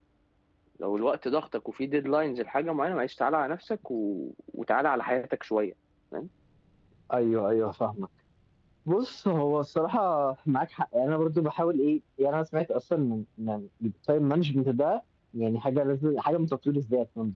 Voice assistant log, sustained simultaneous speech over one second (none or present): none